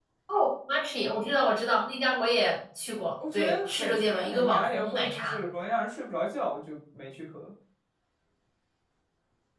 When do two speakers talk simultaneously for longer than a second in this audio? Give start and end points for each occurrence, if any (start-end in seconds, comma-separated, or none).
3.3-5.4